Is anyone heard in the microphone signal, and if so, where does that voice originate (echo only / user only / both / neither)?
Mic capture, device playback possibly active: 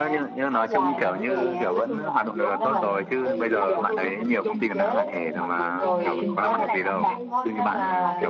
both